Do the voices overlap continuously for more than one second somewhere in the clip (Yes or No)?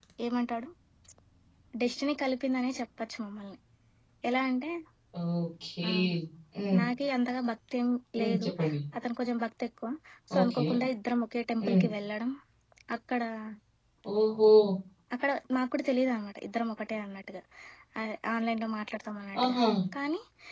No